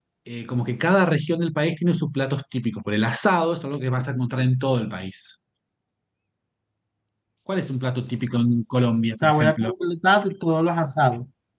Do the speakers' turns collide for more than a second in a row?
No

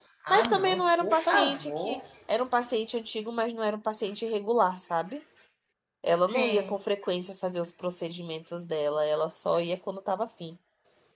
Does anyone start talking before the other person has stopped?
Yes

